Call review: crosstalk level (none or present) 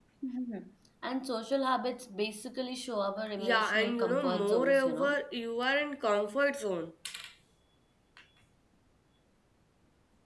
present